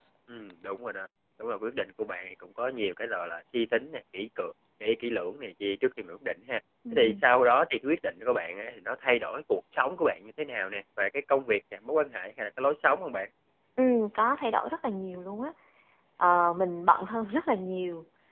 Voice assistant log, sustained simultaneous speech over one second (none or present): none